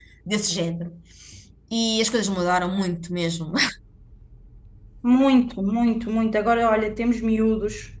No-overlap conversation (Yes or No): Yes